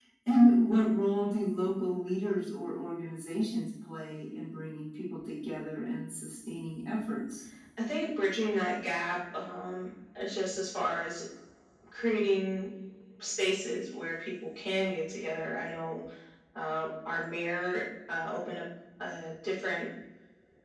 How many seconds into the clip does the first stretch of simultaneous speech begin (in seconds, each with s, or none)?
none